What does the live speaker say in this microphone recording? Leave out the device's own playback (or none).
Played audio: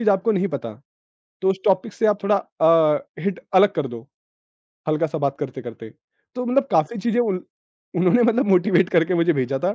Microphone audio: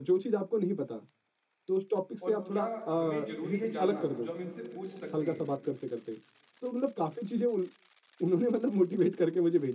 और क्या हमें ज़रूरी है जानना जो हम इनसे पूछ सकते हैं?